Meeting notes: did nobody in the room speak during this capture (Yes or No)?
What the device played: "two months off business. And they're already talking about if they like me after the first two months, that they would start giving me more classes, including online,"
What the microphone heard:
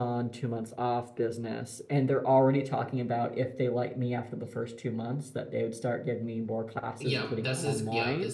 No